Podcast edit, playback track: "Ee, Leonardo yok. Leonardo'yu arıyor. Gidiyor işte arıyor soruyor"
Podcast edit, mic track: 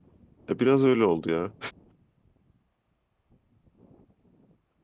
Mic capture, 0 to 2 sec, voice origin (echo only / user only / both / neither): user only